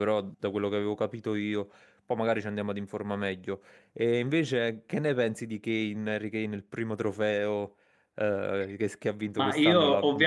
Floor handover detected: Yes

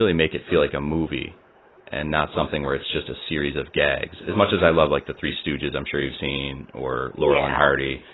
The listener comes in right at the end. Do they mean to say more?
No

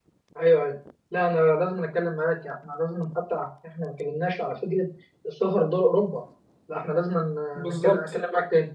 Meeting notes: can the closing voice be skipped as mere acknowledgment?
Yes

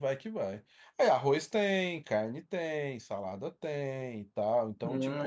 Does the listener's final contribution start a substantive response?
Yes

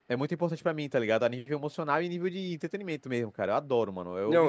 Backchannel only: No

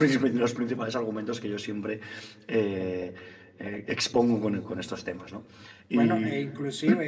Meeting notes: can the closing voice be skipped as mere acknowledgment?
No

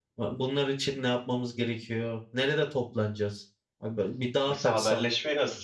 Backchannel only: No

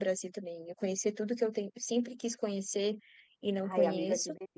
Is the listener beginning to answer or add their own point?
Yes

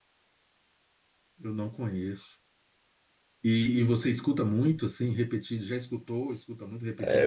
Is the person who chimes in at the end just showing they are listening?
No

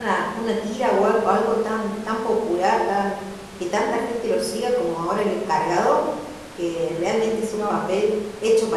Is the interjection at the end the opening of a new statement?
No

